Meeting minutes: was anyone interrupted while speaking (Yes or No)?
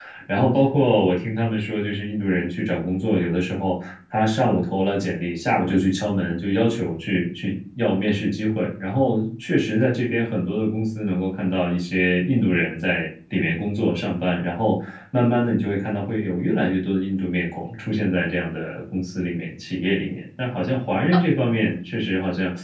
No